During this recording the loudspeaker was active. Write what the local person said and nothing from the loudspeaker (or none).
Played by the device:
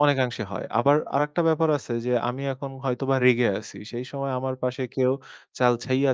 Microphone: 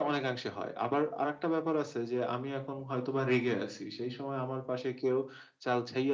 none